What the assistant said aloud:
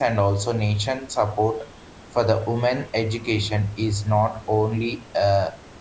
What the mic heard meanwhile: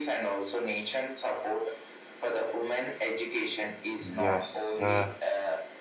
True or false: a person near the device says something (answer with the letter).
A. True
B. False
A